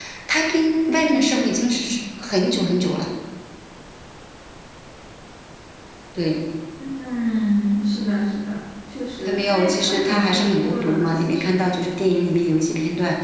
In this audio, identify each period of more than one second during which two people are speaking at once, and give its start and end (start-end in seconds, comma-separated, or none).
9.2-11.6